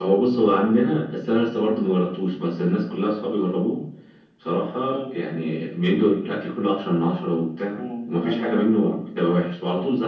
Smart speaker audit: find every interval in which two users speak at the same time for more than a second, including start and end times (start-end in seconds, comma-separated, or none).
7.7-9.0